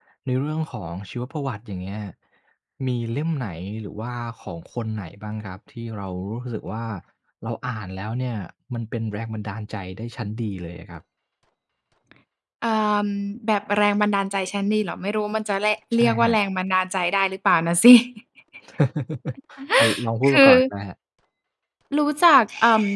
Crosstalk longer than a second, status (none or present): none